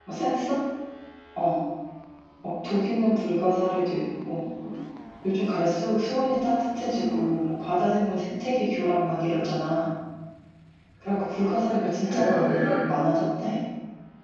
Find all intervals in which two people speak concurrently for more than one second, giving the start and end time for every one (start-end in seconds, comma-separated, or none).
11.3-12.9